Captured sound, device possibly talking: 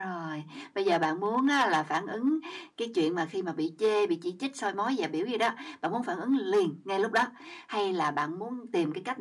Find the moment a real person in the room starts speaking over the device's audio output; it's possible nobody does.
none

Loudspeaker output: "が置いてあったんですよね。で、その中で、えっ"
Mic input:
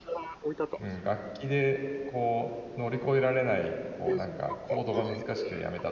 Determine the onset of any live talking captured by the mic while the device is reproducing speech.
0.8 s

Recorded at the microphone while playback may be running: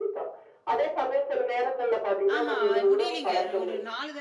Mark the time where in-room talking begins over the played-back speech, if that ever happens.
2.3 s

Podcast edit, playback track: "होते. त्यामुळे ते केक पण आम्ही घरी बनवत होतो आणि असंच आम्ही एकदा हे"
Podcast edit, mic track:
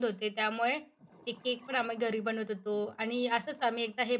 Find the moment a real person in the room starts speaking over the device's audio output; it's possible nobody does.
none

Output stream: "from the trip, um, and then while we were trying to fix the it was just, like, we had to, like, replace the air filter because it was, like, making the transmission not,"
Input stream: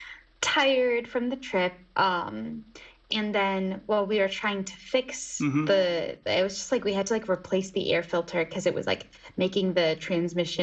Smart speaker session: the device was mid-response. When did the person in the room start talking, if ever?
5.4 s

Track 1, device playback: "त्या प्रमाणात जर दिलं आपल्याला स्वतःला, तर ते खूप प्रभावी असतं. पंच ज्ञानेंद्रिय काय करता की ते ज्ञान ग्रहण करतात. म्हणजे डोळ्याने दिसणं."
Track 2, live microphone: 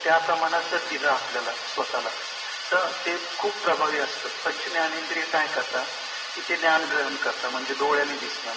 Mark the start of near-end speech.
none

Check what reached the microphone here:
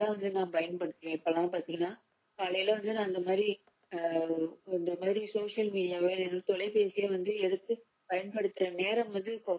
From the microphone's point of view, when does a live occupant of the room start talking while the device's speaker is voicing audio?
none

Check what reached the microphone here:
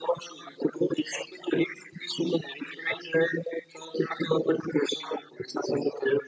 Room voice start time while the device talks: none

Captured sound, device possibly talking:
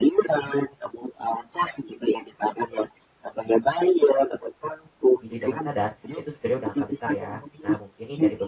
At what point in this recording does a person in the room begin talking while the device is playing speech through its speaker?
5.2 s

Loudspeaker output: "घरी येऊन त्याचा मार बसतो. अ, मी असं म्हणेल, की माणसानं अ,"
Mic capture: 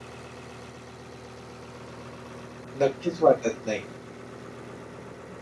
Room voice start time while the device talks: 2.8 s

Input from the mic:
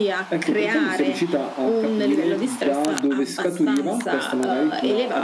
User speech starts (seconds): none

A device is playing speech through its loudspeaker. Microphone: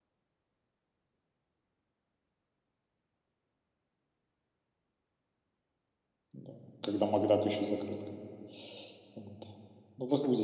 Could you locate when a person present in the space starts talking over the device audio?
6.3 s

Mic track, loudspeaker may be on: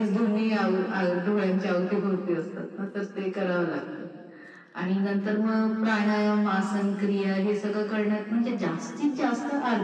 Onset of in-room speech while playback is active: none

